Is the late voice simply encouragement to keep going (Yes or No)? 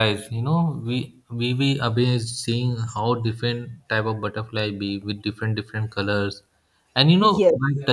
Yes